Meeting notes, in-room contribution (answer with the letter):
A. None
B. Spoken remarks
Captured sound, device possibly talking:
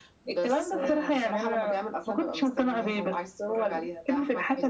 A